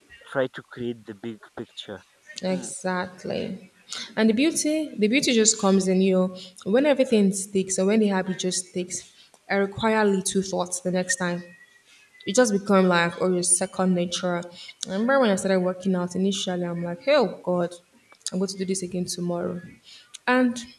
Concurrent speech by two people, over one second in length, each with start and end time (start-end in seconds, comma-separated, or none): none